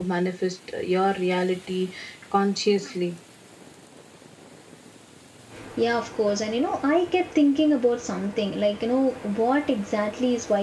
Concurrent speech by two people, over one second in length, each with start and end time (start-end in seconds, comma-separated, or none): none